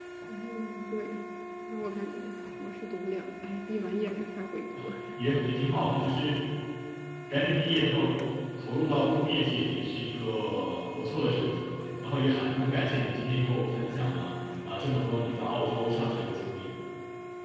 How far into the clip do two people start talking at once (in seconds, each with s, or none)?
none